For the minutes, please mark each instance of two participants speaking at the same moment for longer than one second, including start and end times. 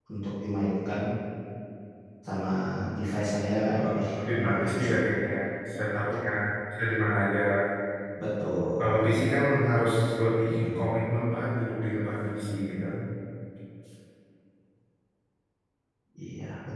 3.7-5.1

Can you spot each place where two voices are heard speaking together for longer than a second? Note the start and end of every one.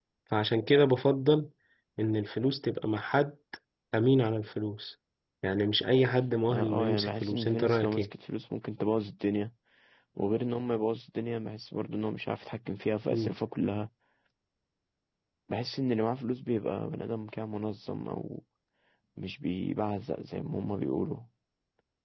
6.5-8.1

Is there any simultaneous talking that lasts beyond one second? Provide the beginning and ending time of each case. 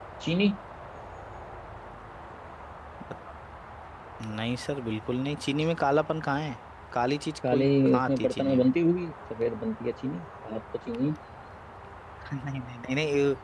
7.5-8.7

